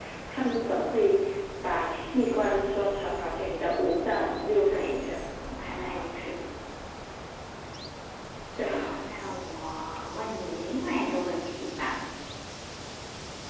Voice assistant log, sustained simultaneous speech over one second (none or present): none